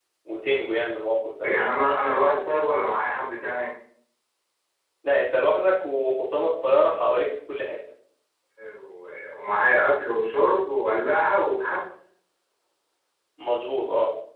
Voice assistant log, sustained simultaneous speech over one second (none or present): none